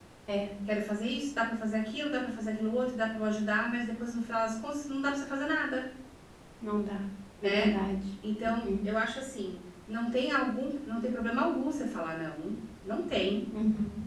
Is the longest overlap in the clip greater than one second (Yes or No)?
No